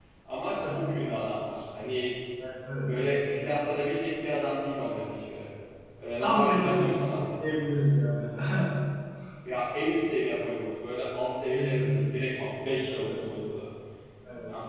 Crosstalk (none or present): present